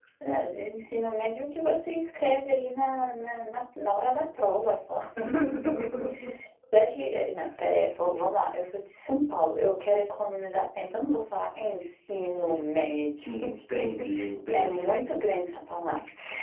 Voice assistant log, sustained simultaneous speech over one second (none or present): none